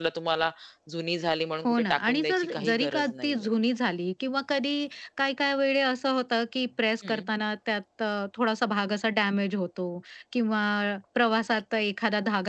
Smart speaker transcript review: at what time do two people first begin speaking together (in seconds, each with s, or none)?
1.6 s